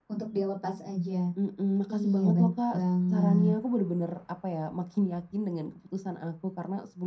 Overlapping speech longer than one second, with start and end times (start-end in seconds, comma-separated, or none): 1.9-3.5